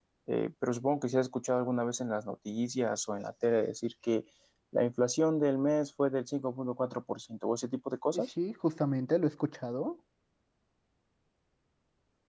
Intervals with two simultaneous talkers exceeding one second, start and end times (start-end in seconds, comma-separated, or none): none